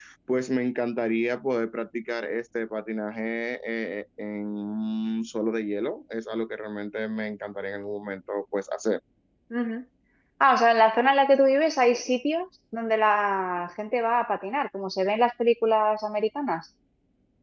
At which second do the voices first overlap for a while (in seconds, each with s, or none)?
none